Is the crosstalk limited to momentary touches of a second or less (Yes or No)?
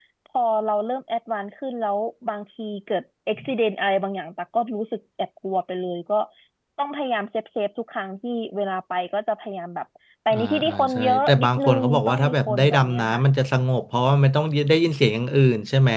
No